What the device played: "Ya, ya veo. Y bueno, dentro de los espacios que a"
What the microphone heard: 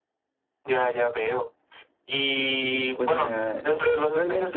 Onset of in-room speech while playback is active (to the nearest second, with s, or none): 3 s